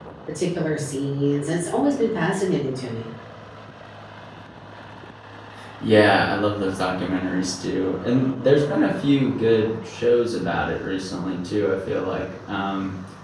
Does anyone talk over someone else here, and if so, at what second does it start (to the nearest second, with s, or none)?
none